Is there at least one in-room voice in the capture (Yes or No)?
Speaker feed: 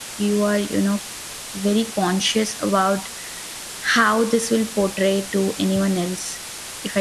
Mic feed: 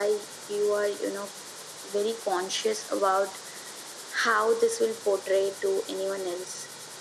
No